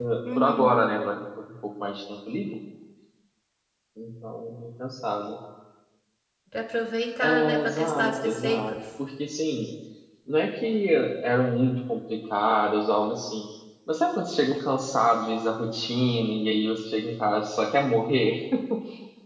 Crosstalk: present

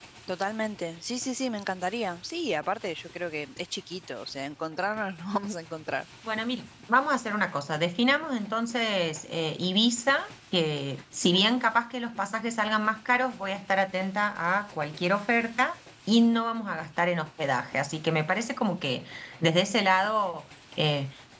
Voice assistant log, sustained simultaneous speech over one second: none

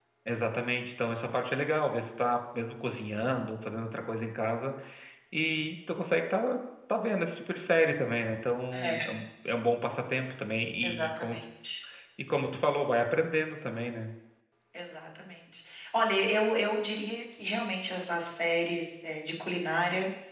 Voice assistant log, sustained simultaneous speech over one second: none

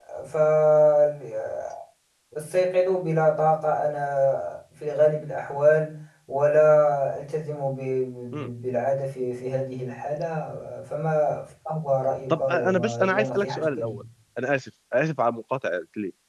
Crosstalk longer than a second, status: present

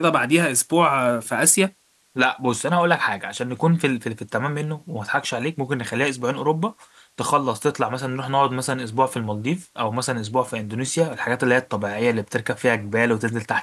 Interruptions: none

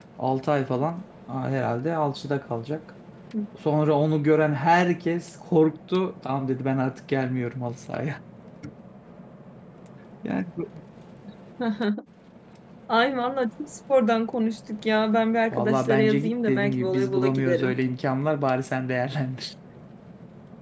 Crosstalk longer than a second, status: present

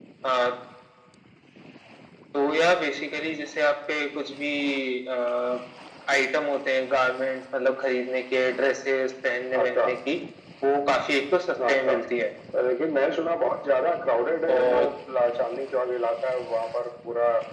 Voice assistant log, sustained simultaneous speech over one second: none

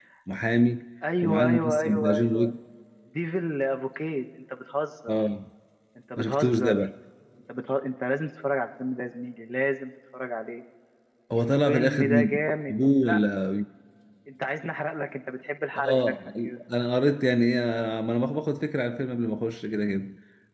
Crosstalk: present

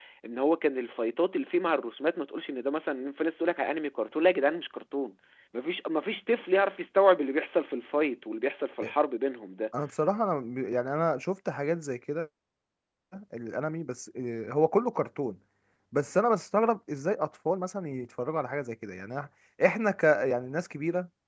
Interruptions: none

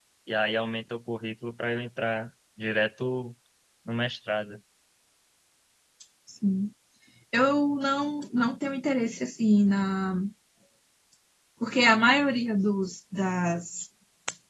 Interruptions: none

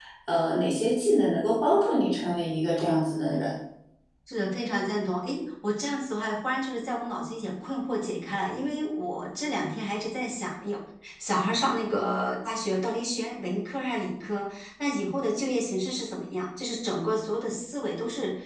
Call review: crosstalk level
none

